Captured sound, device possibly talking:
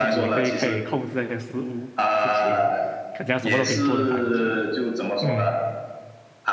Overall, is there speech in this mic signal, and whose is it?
both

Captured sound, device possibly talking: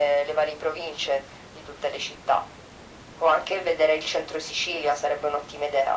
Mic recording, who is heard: echo only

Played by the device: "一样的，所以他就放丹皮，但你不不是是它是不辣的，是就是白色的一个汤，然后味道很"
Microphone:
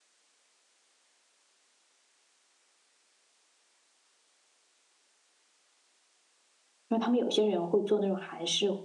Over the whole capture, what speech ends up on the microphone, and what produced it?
user only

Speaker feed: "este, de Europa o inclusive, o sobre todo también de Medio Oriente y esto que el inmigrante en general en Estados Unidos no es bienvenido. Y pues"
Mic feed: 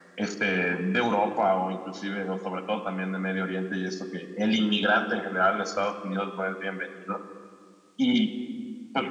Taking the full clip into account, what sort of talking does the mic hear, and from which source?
echo only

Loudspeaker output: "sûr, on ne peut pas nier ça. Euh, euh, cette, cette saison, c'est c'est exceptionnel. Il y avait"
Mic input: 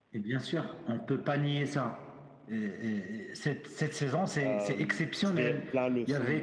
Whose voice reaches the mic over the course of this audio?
both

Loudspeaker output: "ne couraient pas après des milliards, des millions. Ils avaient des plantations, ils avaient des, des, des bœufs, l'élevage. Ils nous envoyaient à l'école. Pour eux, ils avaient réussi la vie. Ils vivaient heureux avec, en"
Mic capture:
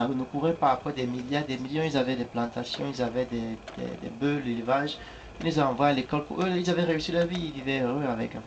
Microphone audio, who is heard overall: echo only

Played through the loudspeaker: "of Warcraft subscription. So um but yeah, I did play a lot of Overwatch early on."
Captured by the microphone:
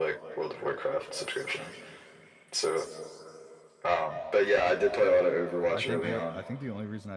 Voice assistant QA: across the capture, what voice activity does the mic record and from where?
both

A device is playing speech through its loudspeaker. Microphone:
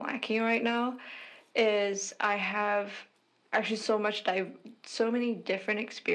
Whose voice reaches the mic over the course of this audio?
echo only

